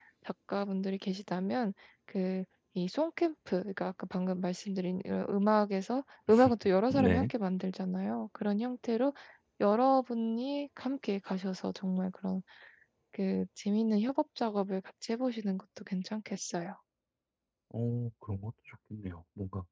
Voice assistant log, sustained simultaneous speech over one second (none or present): none